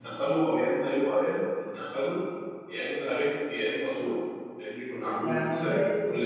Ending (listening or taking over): taking over